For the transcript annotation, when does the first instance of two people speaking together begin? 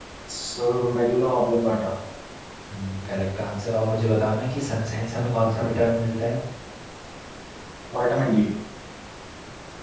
none

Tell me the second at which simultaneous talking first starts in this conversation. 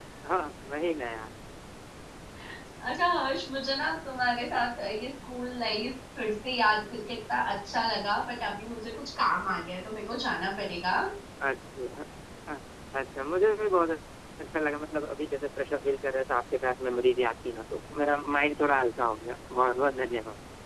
none

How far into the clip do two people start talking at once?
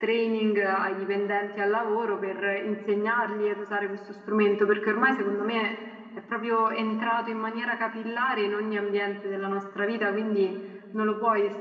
none

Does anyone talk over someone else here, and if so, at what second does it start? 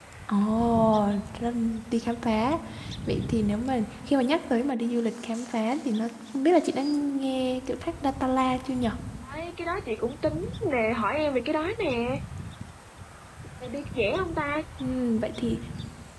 none

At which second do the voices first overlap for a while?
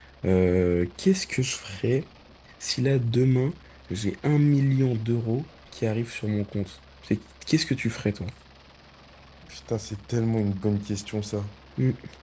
none

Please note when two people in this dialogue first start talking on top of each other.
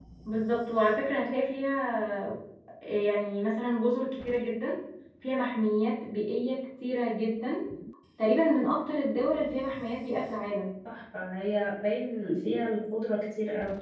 none

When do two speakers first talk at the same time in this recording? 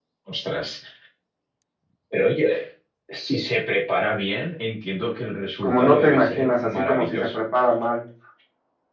5.6 s

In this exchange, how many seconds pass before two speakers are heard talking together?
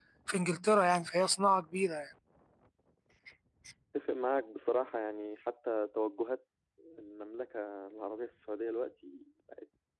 none

